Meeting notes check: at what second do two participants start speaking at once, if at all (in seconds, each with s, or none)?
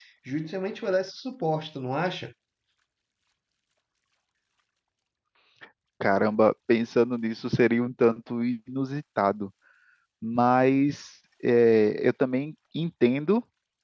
none